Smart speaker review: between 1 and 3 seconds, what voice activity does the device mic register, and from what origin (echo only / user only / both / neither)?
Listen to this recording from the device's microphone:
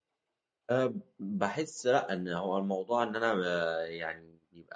user only